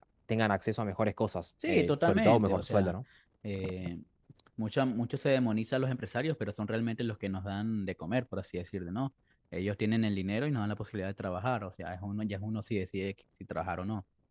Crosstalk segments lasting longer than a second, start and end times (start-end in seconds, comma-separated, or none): 1.7-2.9